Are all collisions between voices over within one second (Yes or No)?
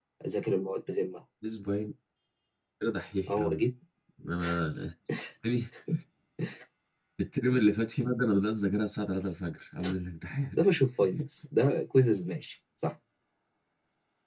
Yes